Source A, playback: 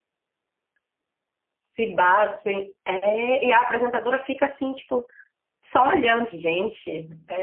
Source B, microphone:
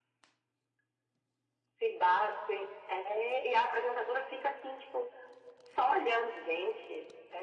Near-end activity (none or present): none